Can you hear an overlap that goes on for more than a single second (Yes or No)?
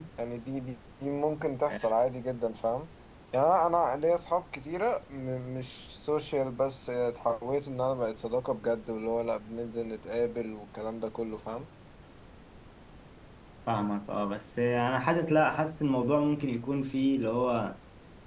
No